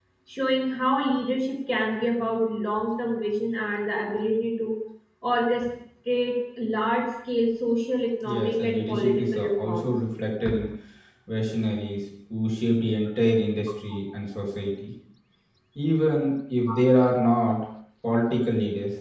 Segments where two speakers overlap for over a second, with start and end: 8.2-9.9

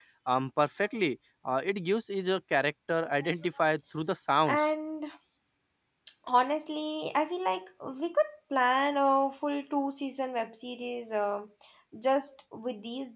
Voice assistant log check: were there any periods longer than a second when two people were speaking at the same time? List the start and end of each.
none

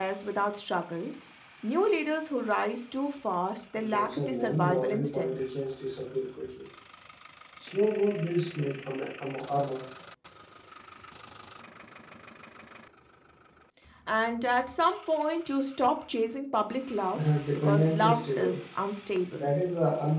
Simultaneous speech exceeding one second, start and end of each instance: 3.8-5.5, 17.1-18.6

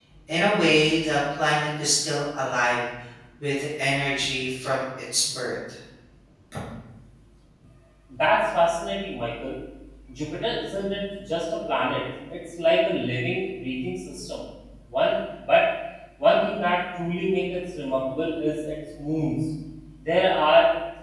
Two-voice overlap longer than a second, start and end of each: none

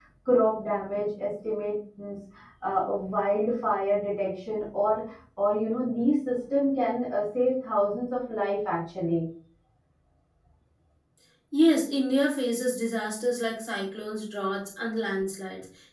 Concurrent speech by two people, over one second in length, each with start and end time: none

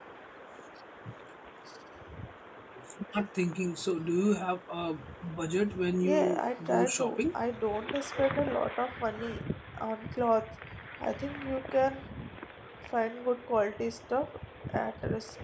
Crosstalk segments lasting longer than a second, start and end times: 6.0-7.2

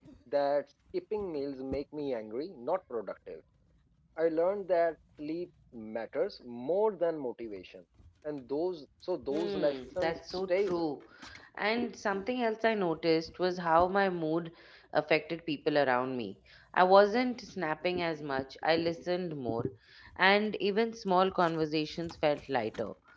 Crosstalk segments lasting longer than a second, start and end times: 9.3-10.8

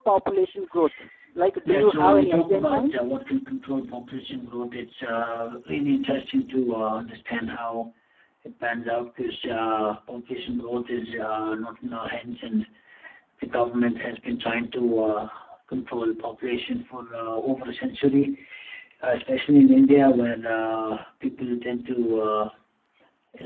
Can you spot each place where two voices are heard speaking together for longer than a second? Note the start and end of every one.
1.7-2.9

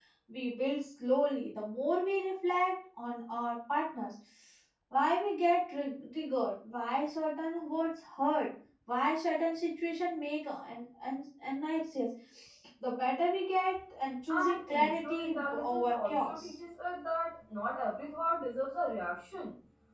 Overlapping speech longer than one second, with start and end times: 14.3-16.5

